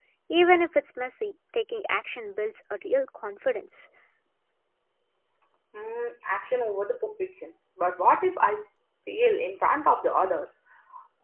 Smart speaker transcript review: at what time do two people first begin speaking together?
none

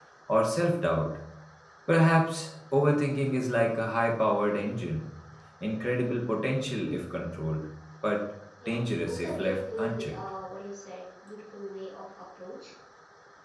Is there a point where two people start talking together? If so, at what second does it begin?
9 s

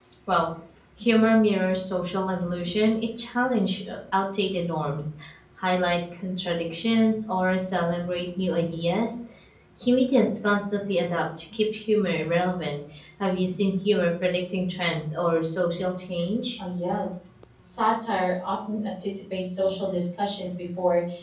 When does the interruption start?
none

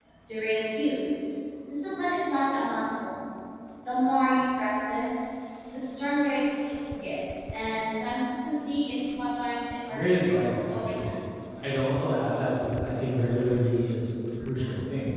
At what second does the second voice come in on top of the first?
10 s

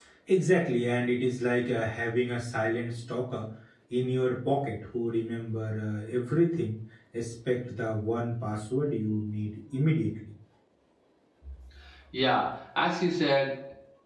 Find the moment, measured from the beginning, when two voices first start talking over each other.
none

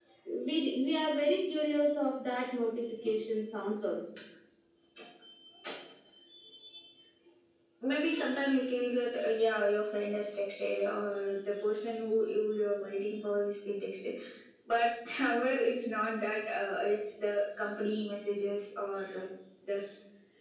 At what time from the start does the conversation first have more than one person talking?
none

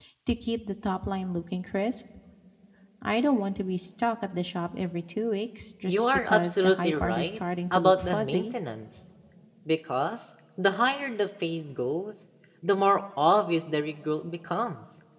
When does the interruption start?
6 s

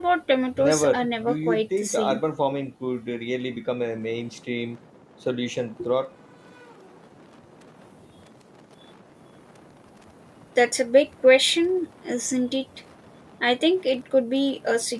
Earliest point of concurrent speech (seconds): 1 s

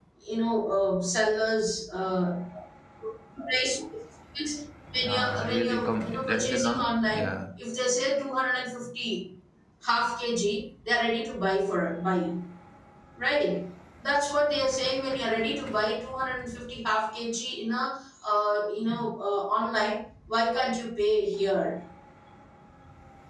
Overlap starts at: 5 s

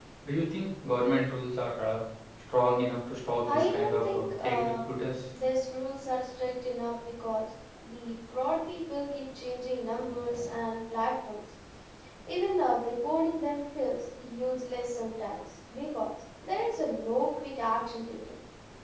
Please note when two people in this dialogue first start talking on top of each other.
3 s

